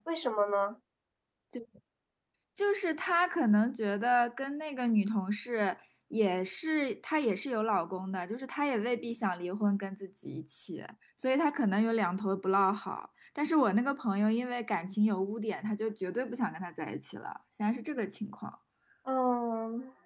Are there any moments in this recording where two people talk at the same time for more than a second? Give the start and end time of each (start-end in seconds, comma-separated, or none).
none